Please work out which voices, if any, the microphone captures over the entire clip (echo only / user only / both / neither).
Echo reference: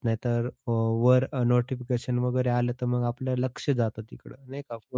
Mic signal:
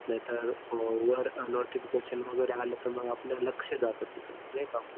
echo only